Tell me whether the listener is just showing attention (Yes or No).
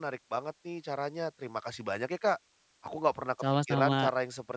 Yes